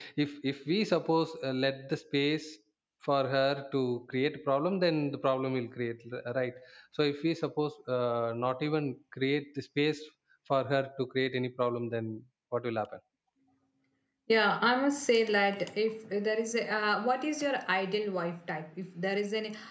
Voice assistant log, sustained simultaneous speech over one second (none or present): none